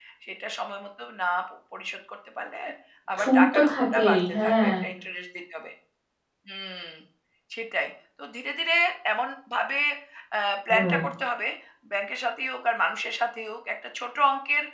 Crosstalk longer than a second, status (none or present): present